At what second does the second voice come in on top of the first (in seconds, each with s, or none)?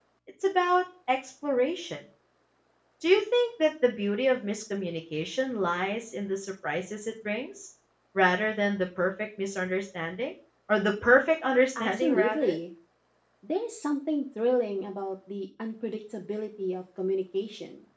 11.1 s